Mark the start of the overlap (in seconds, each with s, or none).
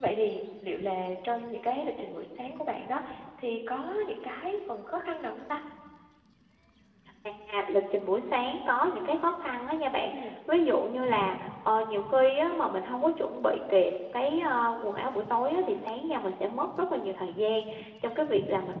none